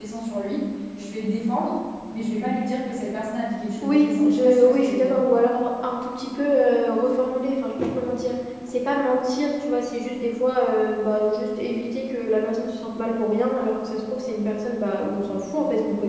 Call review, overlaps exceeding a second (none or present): present